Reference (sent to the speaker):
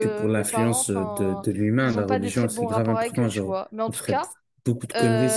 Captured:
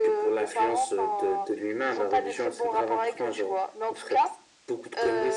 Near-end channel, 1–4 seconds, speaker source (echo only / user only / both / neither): echo only